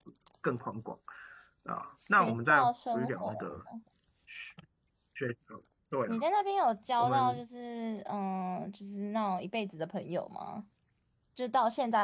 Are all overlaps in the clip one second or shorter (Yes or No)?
No